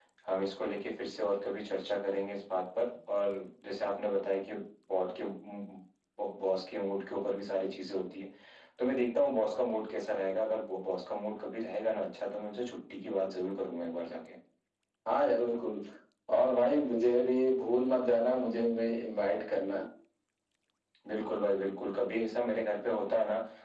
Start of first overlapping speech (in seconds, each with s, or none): none